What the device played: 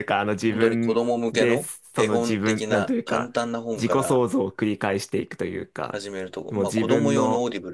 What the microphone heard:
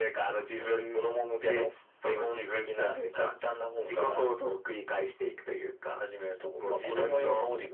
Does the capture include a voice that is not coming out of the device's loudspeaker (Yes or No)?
No